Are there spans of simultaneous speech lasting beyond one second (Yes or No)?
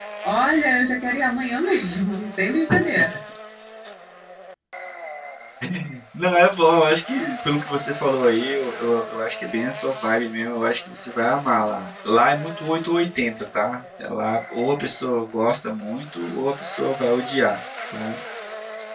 No